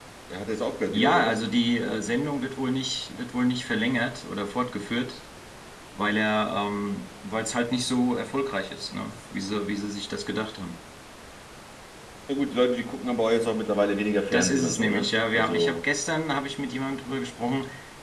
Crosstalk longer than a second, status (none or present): present